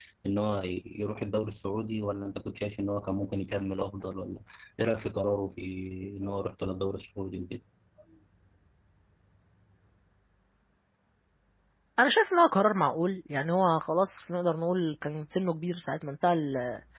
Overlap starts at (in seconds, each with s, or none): none